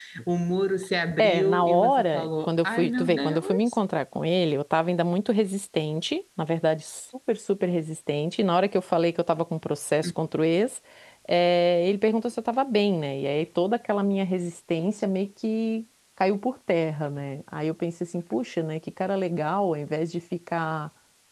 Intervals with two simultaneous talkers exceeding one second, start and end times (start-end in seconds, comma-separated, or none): 1.2-3.8